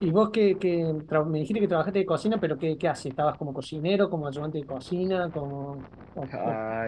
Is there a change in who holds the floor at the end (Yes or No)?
Yes